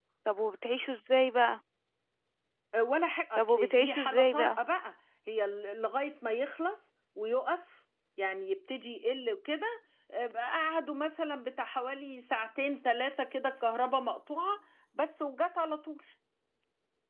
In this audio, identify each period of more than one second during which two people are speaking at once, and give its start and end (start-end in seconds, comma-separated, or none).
3.4-4.6